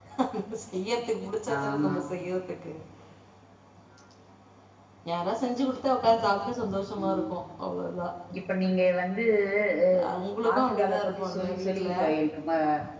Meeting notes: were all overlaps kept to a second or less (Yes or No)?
No